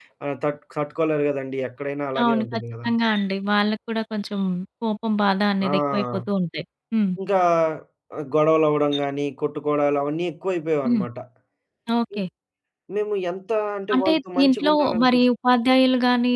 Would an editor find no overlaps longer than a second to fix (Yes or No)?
No